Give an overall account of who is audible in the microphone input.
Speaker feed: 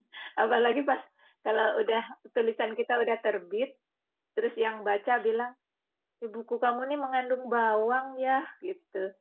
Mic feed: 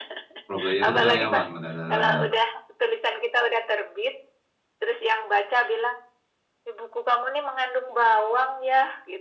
both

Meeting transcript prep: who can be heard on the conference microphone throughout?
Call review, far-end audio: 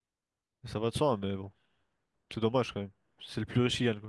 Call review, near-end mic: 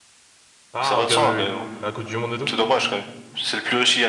both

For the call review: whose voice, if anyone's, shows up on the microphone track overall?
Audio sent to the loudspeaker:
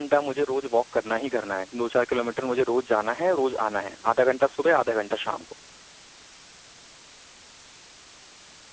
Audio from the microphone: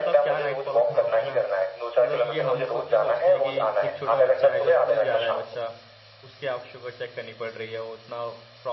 both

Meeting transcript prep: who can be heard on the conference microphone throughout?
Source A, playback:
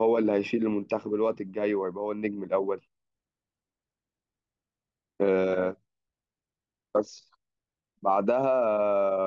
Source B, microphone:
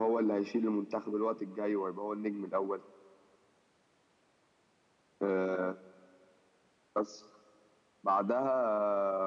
echo only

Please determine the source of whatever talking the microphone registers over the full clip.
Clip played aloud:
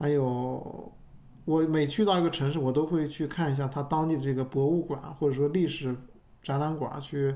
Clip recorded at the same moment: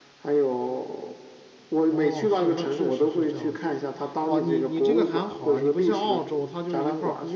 both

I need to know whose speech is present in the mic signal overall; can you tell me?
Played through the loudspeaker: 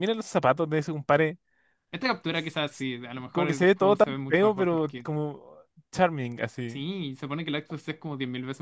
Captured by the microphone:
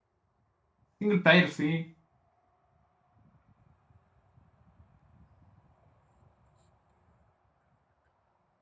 user only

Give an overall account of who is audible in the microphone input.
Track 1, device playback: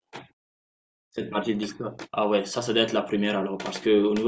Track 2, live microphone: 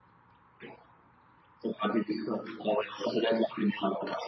echo only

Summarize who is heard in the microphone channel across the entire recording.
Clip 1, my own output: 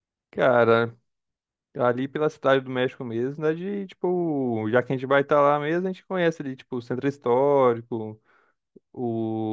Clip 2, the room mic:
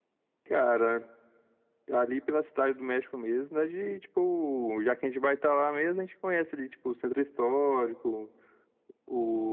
echo only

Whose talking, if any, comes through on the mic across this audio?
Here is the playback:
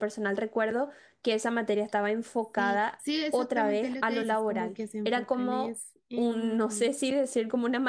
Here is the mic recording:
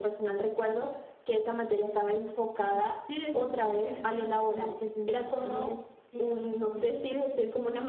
echo only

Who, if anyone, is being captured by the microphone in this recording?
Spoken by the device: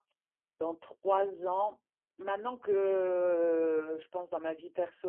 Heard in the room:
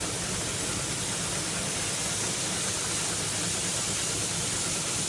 neither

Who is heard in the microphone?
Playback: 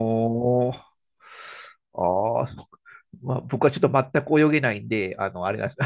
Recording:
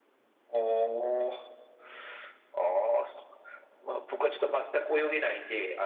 echo only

